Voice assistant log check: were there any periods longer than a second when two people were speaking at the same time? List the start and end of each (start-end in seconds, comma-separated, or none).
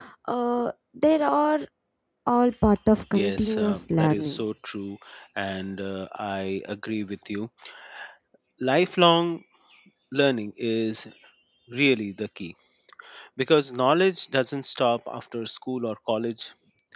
3.1-4.4